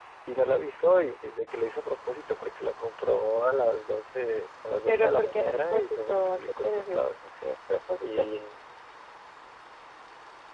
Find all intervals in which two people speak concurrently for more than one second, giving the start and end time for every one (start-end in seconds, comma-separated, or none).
4.9-7.1